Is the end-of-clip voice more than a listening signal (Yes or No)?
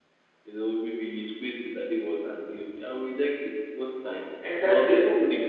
No